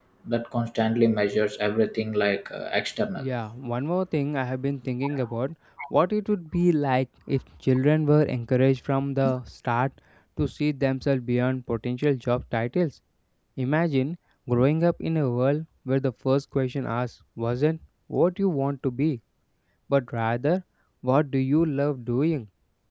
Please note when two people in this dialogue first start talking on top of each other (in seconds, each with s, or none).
none